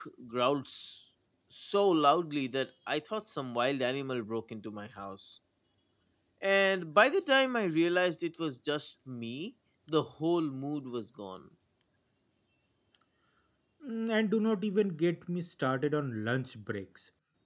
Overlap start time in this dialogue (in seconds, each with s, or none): none